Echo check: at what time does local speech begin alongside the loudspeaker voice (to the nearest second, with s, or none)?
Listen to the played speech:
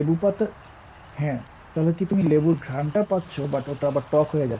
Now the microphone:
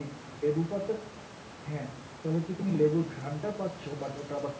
none